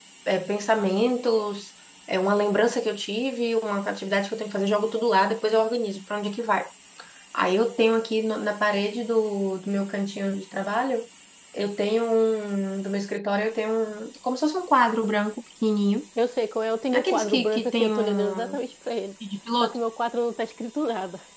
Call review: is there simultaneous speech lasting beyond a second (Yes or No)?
Yes